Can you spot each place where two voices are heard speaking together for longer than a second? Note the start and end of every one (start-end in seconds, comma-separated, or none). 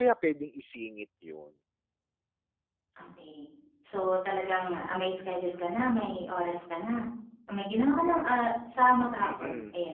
none